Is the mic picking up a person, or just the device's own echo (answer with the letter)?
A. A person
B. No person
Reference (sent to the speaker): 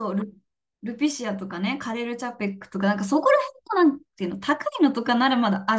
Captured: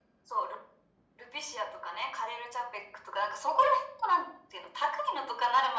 B